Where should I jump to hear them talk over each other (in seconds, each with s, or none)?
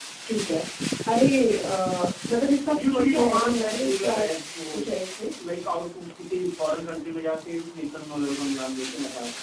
2.7 s